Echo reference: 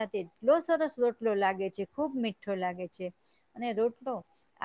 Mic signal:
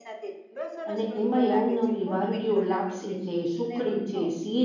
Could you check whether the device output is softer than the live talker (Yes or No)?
Yes